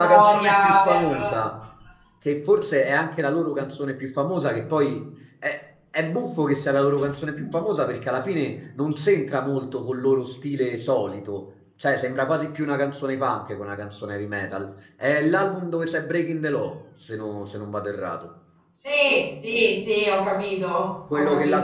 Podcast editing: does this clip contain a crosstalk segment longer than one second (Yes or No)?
Yes